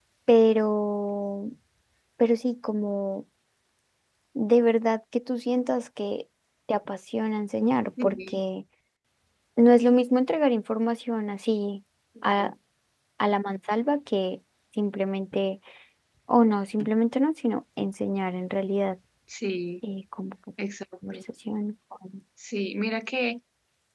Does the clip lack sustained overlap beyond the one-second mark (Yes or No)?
Yes